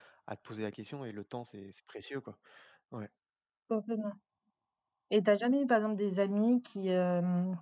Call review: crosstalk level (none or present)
none